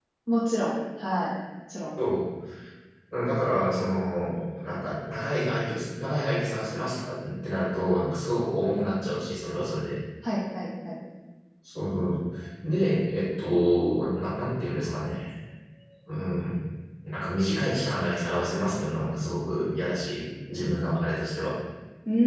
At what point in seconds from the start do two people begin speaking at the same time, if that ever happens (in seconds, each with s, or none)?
none